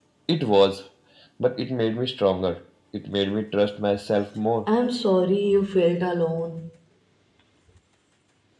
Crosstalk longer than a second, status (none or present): none